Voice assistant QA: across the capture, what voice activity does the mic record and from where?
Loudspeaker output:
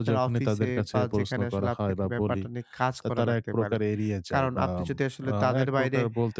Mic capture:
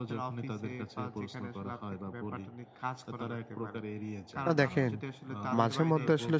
both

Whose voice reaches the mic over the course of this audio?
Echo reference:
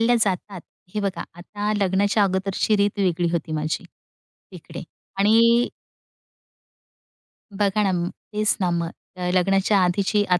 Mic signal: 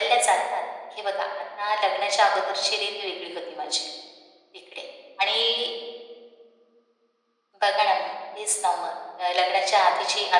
echo only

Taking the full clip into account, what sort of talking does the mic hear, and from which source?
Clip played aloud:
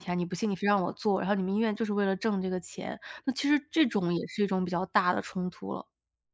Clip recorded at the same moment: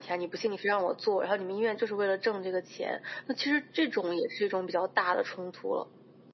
echo only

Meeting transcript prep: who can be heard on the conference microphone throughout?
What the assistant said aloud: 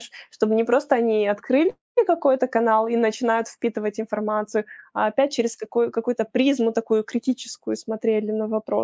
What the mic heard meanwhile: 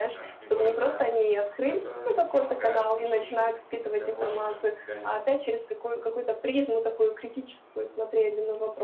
both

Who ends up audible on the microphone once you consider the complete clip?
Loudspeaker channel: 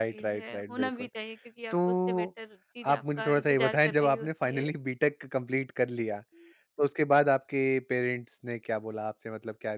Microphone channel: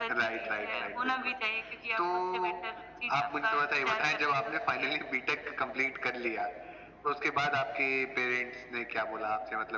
echo only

